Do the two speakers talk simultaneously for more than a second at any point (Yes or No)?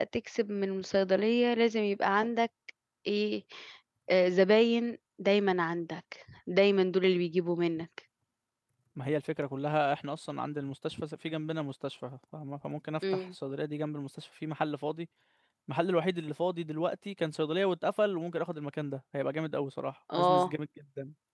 No